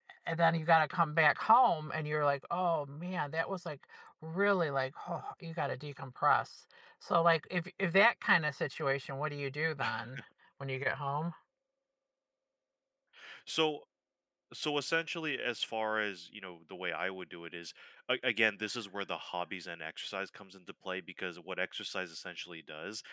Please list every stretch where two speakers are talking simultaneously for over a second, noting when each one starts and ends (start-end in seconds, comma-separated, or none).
none